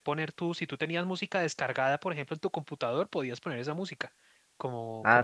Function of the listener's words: taking over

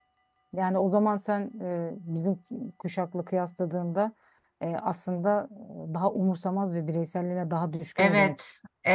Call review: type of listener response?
taking over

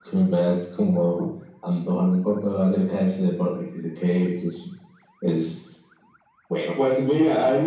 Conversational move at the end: taking over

